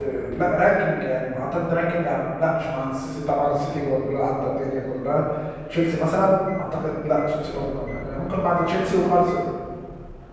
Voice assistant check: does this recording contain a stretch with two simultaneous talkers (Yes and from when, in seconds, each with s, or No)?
No